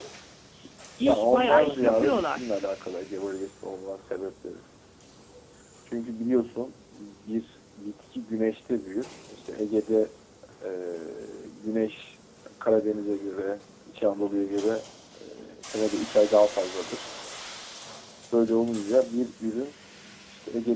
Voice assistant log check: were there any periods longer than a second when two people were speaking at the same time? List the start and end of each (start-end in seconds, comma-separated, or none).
1.0-2.4